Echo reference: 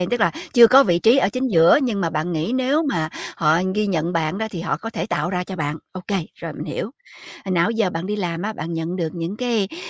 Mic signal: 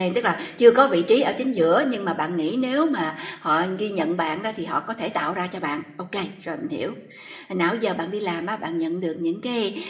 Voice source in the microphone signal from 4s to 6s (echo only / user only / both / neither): echo only